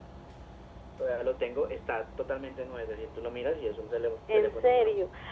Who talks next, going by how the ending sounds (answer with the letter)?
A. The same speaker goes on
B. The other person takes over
B